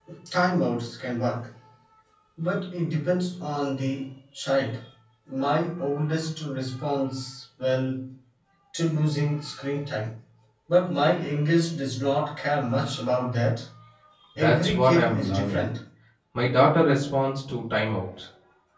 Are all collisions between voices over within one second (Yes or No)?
No